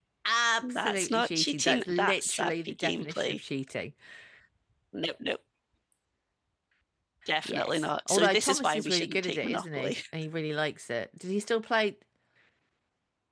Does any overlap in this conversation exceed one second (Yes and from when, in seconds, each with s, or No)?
Yes, from 0.6 s